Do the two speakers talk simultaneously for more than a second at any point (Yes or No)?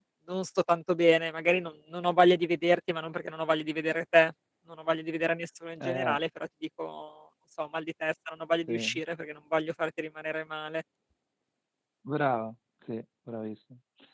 No